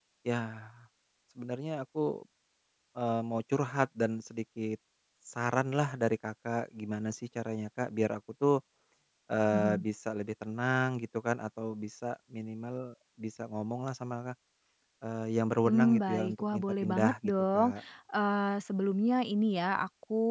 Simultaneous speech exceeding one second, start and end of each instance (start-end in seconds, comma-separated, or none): 15.7-17.7